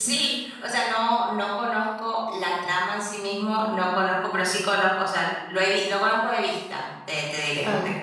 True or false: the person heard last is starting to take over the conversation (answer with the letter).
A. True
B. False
A